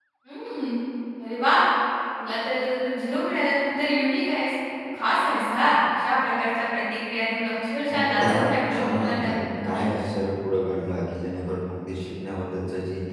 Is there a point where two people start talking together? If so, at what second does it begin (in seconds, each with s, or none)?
7.9 s